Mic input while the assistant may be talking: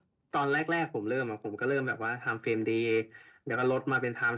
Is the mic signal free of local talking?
Yes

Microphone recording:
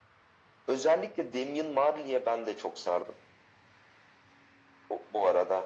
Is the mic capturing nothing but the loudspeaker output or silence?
Yes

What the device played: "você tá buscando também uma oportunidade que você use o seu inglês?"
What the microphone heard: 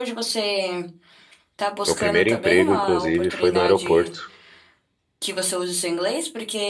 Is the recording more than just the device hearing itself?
Yes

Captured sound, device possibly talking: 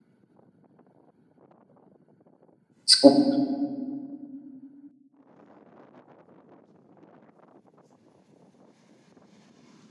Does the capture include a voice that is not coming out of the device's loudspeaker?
Yes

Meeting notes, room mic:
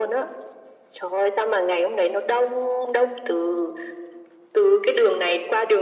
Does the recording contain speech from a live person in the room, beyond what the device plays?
No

